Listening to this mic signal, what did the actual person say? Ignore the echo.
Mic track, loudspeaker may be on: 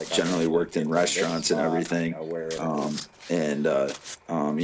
none

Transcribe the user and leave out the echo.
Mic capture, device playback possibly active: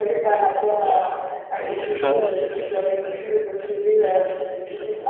Donc tu vois,

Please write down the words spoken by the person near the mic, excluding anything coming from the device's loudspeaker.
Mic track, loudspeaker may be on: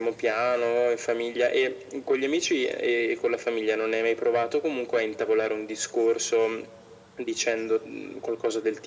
none

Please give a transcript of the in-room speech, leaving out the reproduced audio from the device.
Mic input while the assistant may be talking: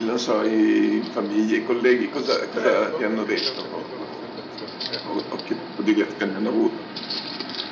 Certo ho capito ho capito l'osservazione, cer

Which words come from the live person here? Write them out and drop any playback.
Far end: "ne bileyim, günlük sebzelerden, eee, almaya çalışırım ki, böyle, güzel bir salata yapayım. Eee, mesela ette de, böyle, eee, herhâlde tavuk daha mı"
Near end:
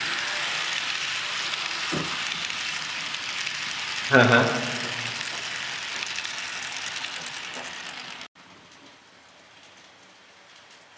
Ha ha.

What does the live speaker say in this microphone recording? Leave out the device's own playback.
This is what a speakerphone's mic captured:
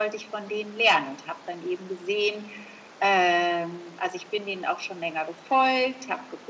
none

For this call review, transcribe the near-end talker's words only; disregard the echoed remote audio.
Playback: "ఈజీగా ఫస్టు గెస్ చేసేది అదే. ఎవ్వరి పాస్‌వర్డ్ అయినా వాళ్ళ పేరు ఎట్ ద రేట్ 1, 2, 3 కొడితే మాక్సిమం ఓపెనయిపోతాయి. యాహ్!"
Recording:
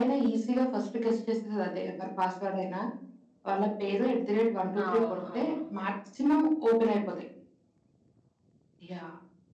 ఆ! అవును. అవును.

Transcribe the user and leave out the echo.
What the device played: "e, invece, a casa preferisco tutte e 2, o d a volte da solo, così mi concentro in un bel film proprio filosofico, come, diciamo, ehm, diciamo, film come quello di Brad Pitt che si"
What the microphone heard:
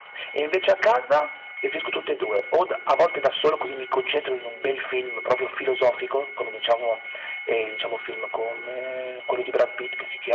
none

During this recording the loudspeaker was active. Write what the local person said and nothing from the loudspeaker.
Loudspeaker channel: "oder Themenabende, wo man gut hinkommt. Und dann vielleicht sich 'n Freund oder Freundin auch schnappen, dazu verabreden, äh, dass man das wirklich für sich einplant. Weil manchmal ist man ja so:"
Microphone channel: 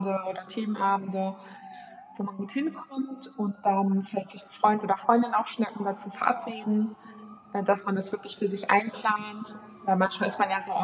none

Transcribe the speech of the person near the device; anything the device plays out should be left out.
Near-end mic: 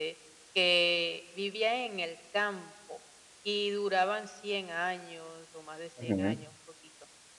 Ujú.

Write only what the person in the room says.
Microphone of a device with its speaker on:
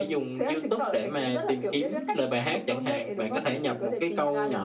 none

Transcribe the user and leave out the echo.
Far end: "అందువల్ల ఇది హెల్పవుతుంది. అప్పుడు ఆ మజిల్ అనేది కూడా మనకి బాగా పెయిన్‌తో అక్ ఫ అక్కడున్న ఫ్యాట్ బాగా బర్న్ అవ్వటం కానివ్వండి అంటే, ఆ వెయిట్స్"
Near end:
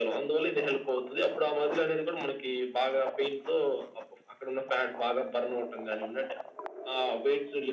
none

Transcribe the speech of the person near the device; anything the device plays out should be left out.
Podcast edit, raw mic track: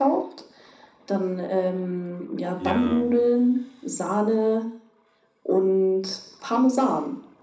Ja.

